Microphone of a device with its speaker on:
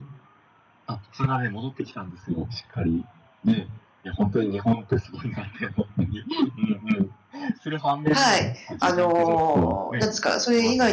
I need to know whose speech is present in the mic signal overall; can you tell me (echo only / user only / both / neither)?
both